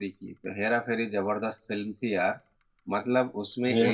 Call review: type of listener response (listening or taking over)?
listening